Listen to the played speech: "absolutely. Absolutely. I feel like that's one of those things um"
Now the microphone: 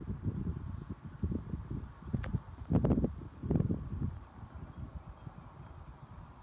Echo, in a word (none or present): none